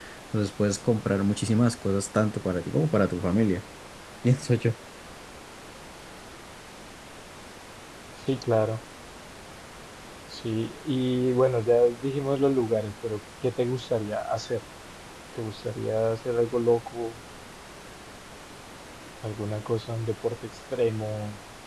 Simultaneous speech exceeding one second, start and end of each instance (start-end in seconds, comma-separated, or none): none